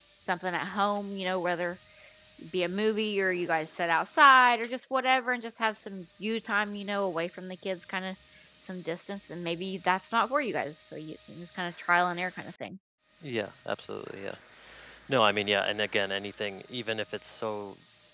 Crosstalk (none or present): none